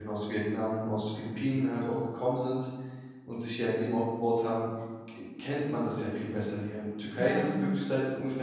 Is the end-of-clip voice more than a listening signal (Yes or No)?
No